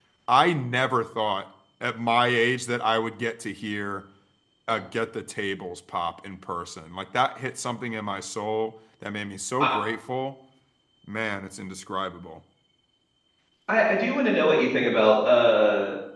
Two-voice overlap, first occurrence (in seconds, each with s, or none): none